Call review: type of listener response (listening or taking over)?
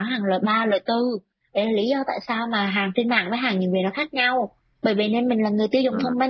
listening